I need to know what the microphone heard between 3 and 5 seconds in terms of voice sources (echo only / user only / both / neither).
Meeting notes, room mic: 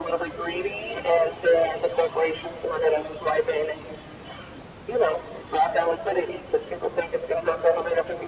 echo only